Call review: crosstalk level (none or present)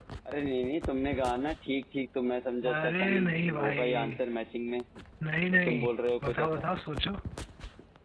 present